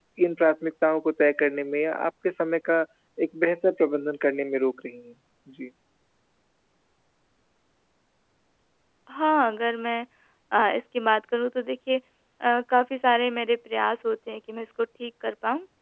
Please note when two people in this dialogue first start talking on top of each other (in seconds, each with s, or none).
none